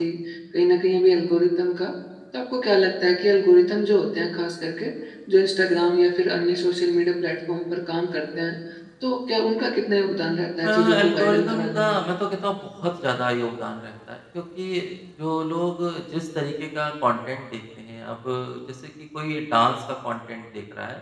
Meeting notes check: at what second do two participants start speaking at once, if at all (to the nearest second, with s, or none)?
11 s